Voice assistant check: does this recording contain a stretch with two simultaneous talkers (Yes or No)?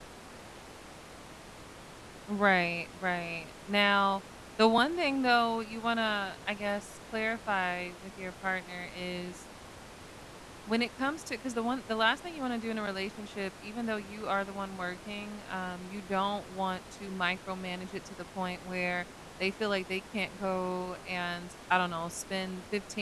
No